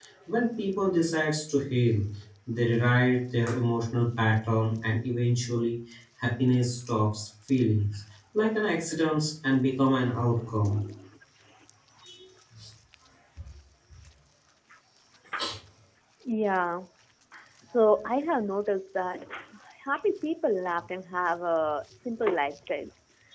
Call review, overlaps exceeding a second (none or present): none